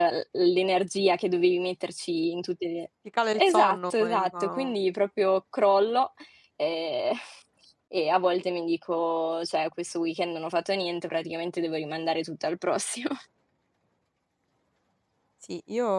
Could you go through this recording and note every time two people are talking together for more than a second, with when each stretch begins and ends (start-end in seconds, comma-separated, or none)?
3.3-4.7